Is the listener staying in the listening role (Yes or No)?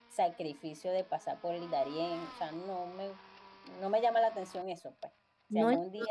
Yes